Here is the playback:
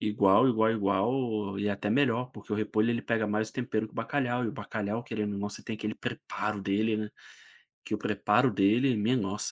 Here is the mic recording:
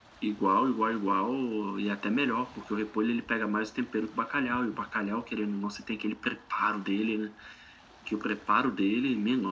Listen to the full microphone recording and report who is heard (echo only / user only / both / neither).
echo only